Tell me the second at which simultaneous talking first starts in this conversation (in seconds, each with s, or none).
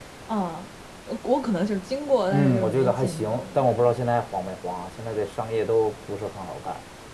2.3 s